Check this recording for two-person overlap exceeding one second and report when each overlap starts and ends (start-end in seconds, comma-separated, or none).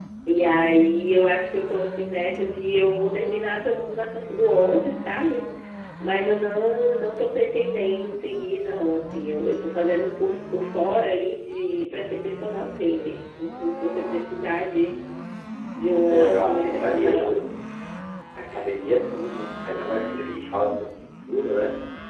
16.1-17.4